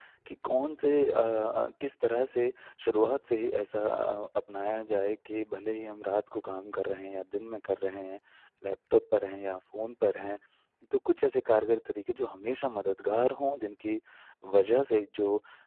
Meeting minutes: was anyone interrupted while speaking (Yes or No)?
No